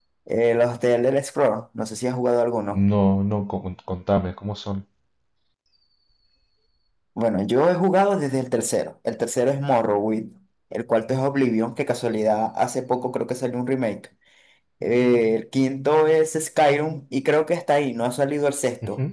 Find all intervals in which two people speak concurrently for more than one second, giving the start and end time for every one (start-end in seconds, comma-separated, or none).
none